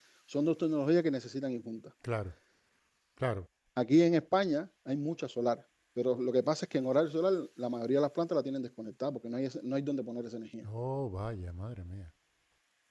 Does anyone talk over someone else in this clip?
No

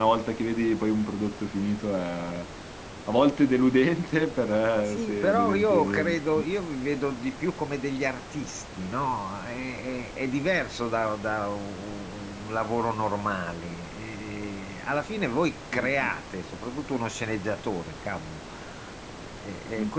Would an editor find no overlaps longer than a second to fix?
No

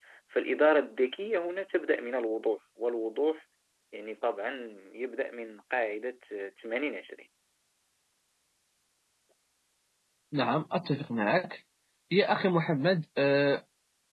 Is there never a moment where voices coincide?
Yes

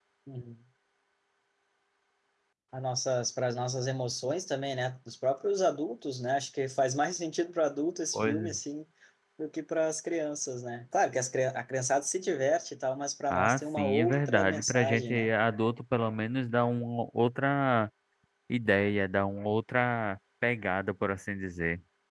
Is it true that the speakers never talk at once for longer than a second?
No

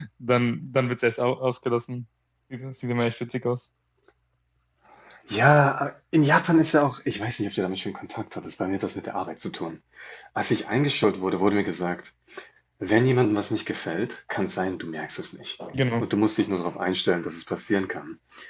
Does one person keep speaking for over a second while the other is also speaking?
No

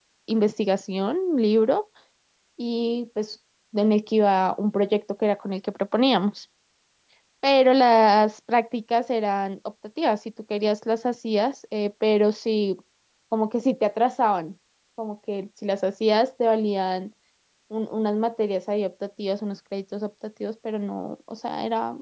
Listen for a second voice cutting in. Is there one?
No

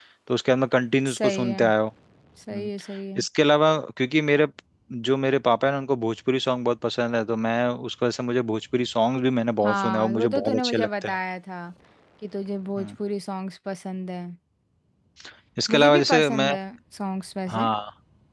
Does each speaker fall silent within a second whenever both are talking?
No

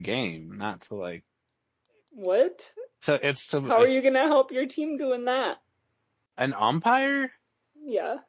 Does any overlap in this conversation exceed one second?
No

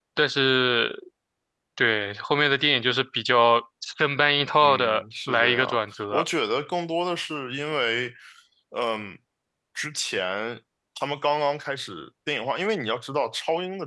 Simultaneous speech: Yes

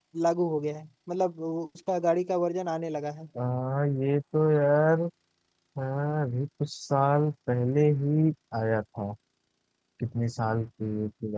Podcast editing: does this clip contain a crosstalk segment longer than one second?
No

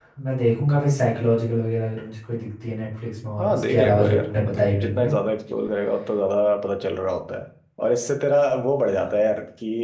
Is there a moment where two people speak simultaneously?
Yes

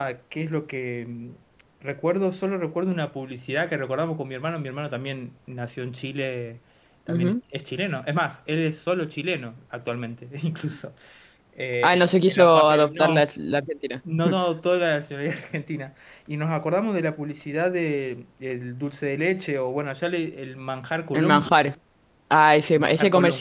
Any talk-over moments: Yes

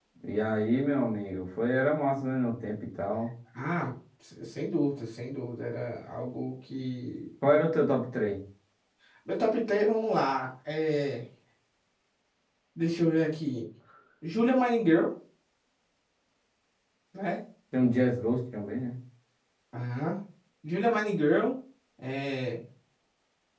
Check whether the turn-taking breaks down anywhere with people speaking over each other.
No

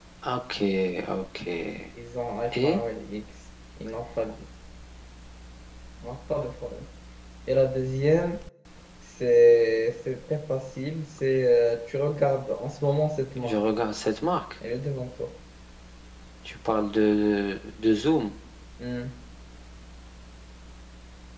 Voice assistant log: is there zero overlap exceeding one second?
Yes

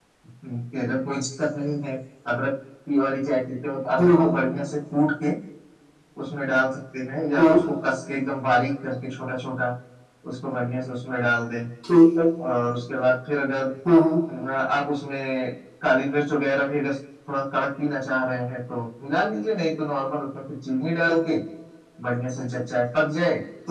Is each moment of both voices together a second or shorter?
Yes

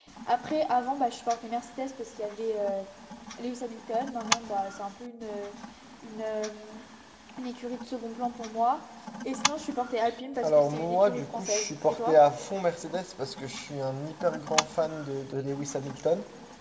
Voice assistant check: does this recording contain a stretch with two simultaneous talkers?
Yes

